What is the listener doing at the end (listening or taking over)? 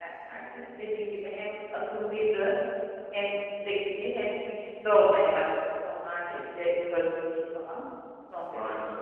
listening